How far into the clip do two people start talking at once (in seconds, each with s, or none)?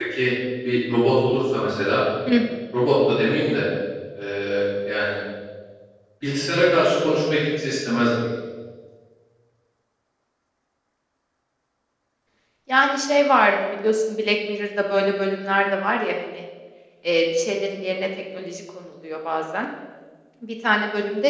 none